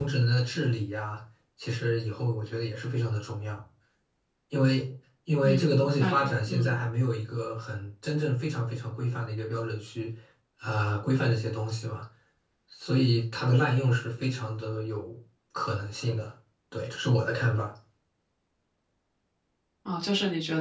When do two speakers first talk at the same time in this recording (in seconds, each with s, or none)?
5.4 s